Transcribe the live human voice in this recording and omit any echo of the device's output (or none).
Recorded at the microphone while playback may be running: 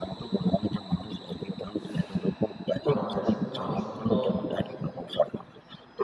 আমার কাছে কিন্তু আমার স্বপ্নটাও অনেক দামি।